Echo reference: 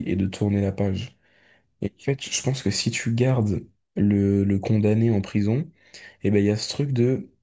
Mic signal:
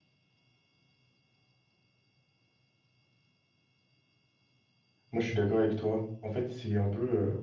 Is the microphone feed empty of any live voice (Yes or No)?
No